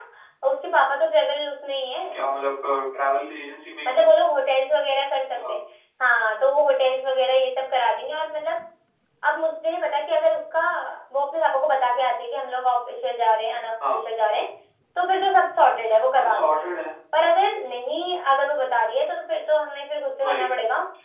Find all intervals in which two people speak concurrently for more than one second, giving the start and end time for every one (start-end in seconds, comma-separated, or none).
none